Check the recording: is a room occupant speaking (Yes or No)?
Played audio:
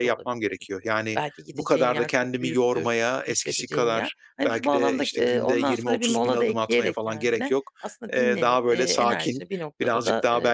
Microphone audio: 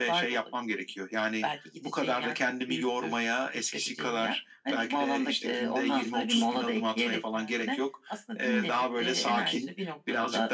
No